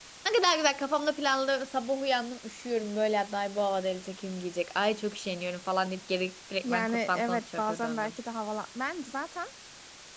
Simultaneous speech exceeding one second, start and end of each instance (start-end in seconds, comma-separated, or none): 6.6-8.1